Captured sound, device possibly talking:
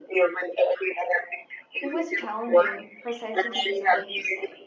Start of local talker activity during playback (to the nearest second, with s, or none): 2 s